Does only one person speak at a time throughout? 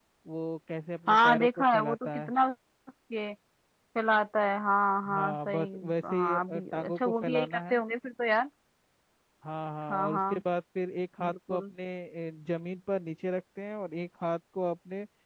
No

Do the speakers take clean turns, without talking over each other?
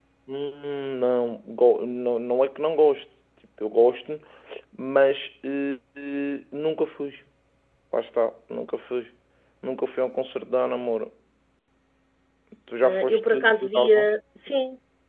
No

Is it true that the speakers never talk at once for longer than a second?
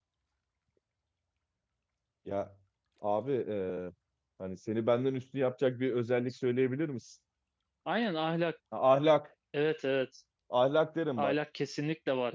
Yes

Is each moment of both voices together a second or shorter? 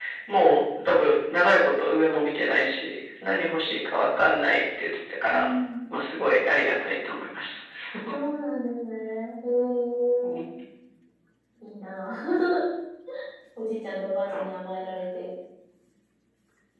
Yes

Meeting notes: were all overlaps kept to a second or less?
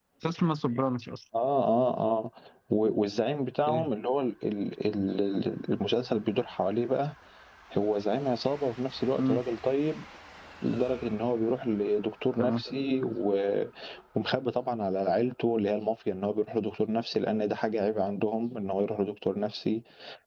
Yes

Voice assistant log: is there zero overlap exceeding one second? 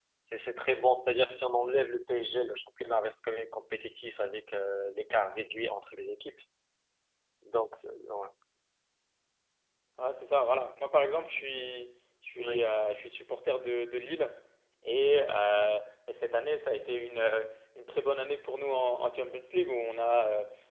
Yes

